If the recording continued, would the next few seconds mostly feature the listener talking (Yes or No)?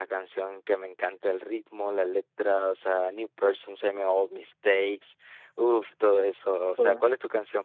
No